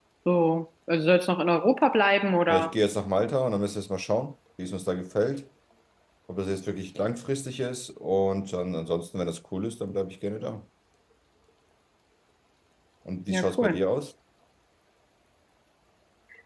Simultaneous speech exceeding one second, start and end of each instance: none

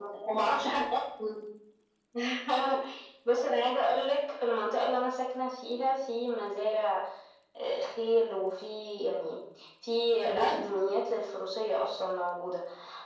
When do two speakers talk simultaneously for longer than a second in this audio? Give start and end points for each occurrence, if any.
none

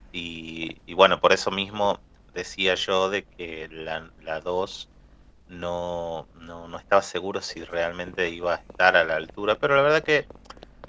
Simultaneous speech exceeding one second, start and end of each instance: none

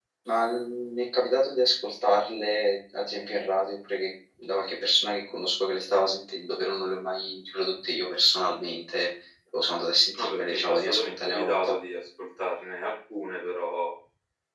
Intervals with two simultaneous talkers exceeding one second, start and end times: 10.2-11.7

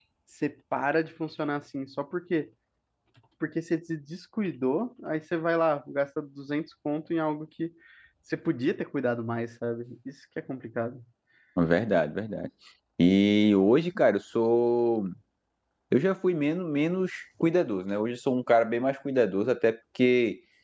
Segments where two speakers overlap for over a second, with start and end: none

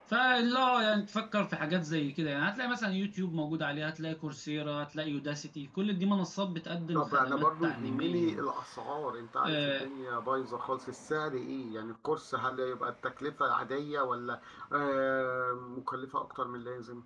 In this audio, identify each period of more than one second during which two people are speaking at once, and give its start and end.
6.9-8.4

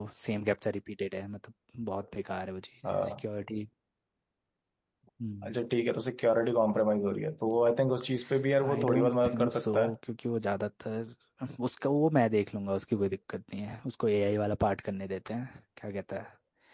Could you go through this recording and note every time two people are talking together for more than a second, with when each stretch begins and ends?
8.7-9.9

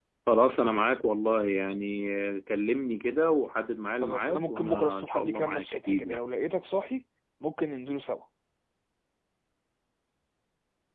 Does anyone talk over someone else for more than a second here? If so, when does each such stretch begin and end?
4.0-6.2

